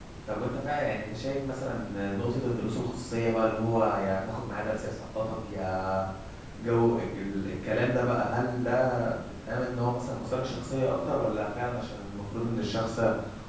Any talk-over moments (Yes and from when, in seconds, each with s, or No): No